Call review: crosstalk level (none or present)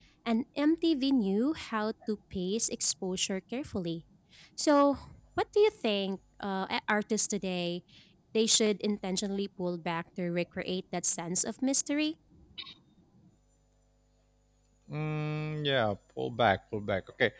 none